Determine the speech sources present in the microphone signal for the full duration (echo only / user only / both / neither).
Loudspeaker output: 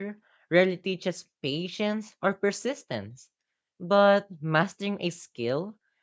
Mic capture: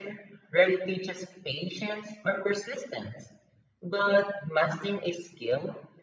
echo only